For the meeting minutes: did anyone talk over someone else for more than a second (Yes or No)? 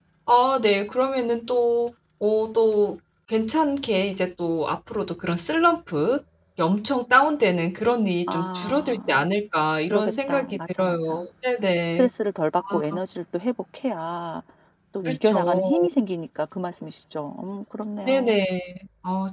Yes